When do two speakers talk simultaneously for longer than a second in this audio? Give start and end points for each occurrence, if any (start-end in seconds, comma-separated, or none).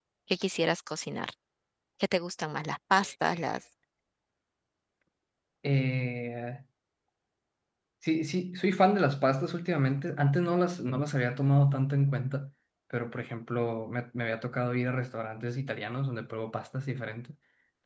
none